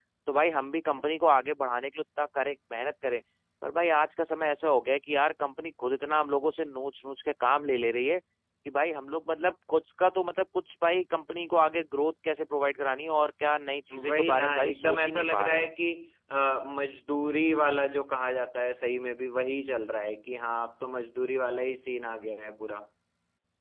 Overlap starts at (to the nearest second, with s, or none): 14 s